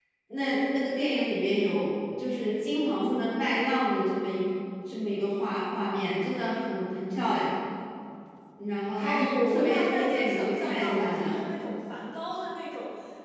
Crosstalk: present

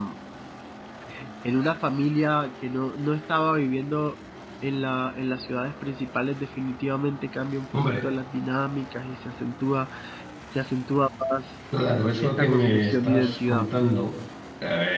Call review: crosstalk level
present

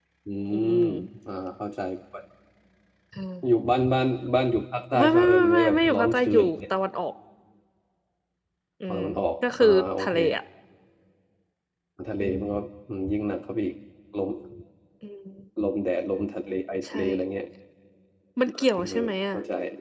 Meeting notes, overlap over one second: present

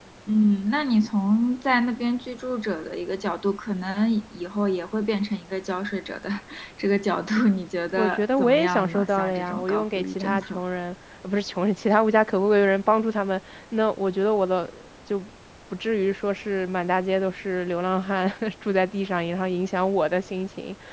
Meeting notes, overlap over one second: present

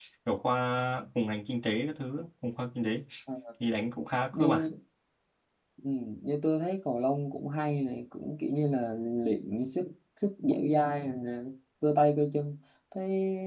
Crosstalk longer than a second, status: none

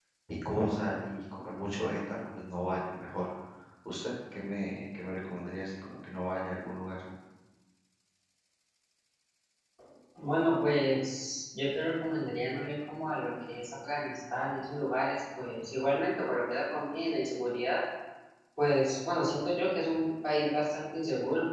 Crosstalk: none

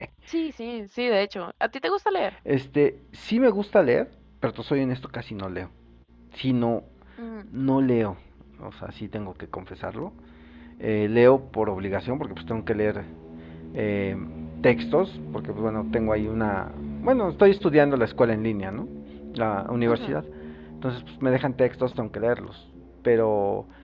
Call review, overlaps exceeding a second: none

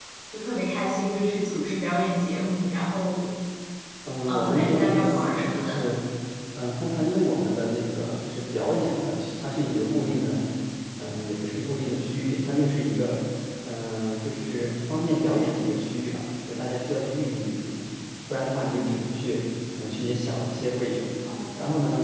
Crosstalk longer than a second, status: present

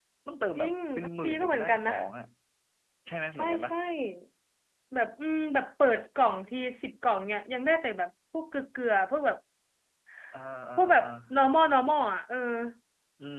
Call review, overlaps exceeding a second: present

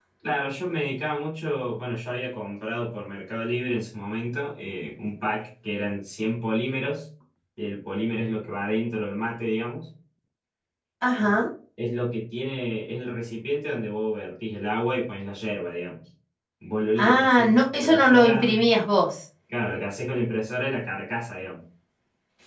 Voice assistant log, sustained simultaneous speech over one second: present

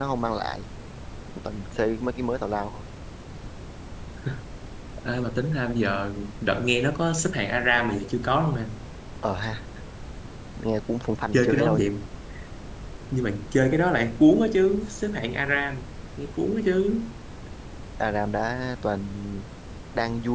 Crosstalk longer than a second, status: none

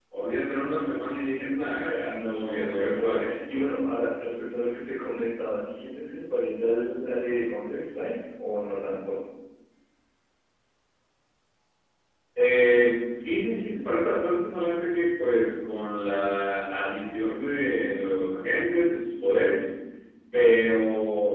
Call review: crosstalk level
present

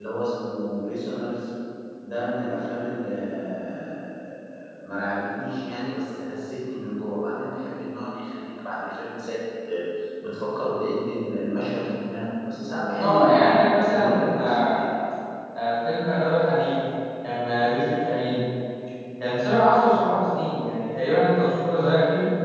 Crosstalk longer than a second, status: present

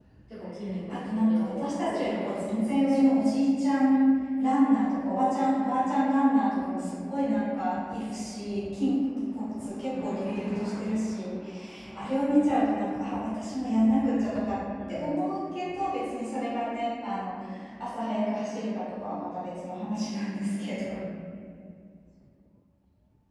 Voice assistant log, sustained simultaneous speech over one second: present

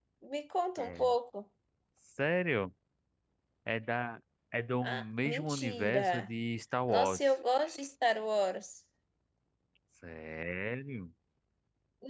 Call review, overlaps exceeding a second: present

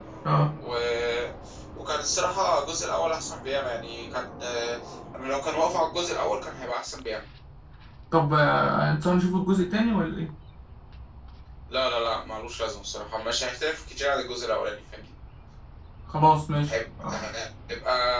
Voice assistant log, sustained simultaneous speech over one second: none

